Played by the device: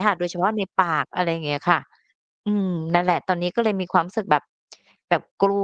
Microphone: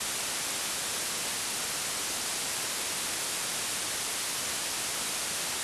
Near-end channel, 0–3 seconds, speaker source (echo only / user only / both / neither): neither